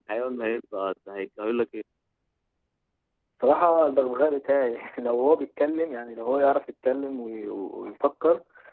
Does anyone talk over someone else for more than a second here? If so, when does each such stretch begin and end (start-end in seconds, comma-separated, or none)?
none